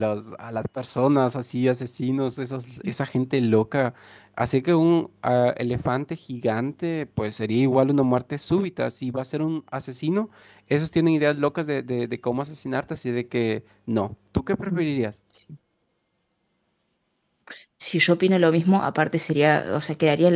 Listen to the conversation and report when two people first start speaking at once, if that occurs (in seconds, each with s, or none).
none